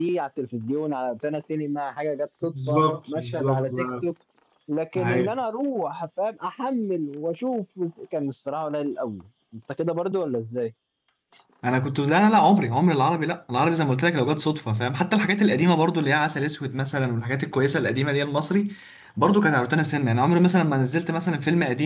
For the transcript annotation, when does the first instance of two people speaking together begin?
2.4 s

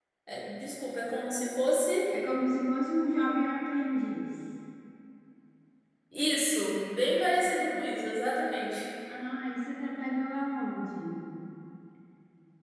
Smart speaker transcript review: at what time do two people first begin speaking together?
none

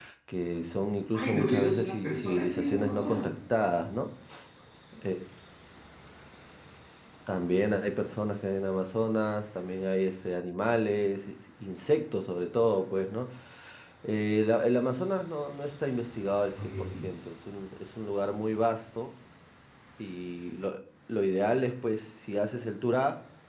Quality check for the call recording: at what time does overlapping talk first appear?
1.1 s

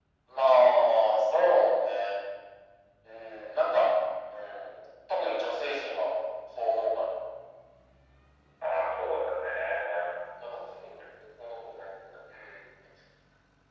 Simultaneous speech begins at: none

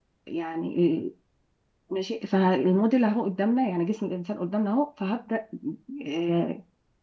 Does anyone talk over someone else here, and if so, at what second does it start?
none

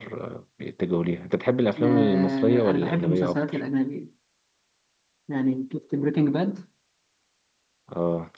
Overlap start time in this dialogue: 1.8 s

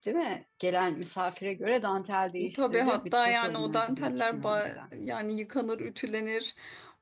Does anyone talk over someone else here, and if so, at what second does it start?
2.4 s

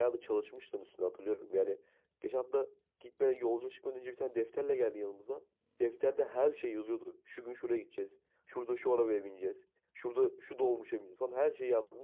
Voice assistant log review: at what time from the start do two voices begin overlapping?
none

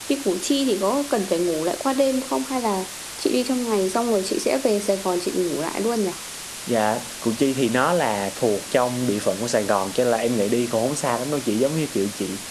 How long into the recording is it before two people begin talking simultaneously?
none

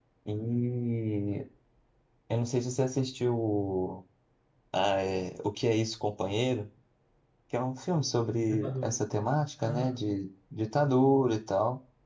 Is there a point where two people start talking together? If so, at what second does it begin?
8.5 s

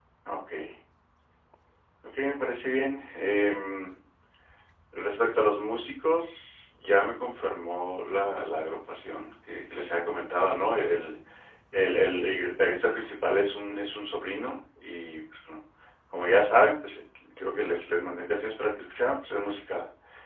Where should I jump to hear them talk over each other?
none

